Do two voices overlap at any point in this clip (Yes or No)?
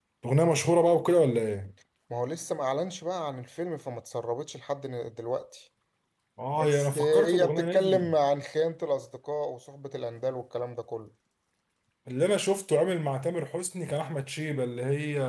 Yes